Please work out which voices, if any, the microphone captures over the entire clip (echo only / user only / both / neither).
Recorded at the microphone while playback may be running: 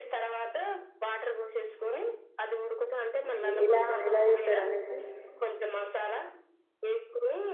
both